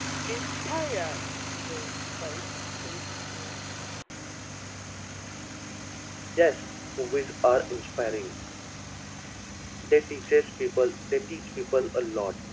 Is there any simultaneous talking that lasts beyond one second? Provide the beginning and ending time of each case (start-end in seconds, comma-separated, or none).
none